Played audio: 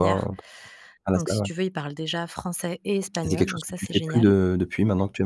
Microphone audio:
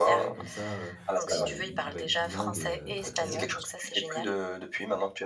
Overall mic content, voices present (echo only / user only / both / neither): both